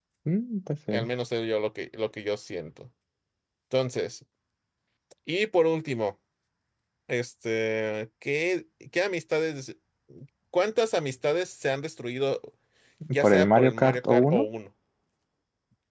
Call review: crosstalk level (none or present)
present